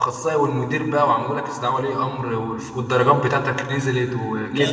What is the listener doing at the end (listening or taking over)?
taking over